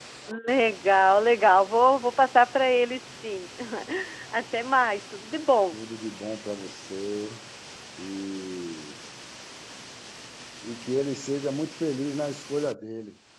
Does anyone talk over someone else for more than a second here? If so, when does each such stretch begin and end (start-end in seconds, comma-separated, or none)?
none